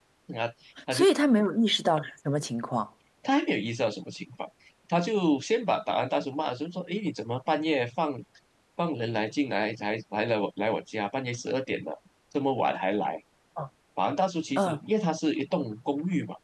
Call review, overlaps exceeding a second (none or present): none